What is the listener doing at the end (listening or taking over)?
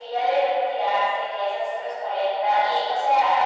listening